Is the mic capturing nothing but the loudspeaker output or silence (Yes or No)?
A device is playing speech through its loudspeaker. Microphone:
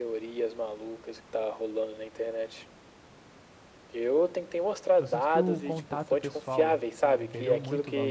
No